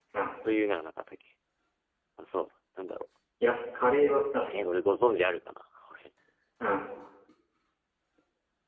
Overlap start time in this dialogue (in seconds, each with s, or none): none